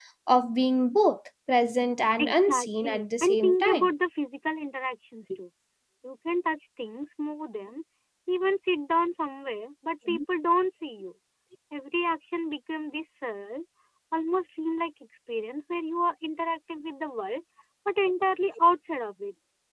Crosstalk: present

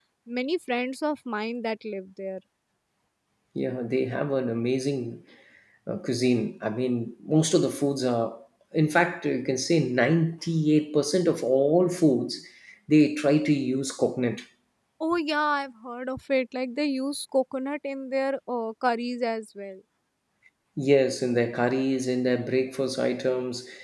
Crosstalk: none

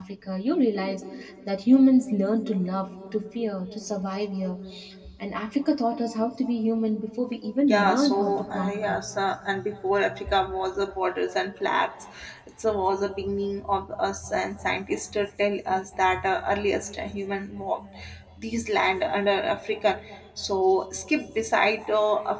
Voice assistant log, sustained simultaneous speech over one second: present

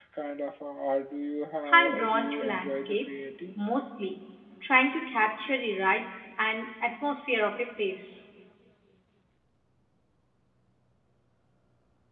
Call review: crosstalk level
present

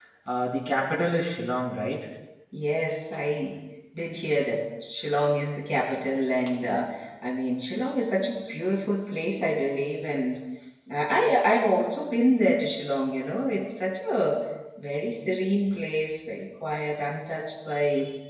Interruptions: none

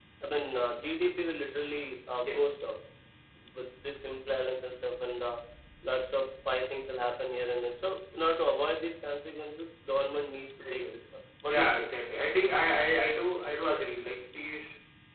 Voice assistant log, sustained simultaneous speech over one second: none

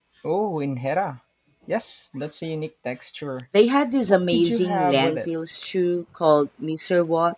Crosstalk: present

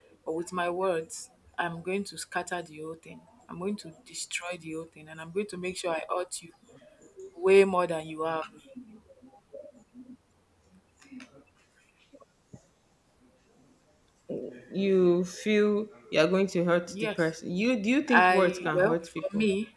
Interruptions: present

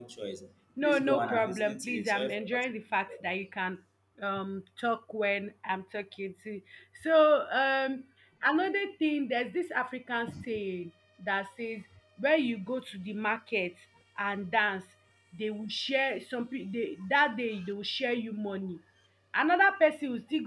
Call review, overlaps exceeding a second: present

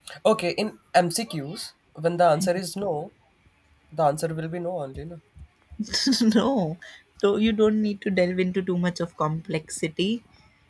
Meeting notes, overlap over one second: none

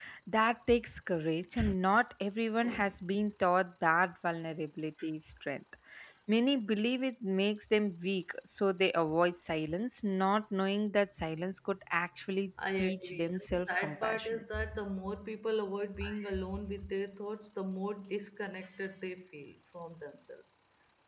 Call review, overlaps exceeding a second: present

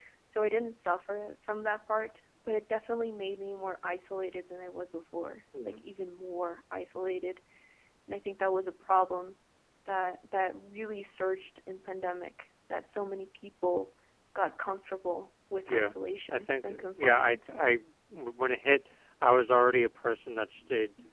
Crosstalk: present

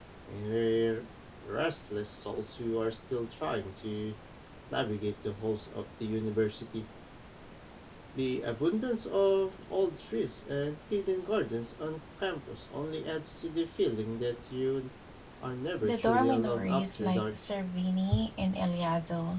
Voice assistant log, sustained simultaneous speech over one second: present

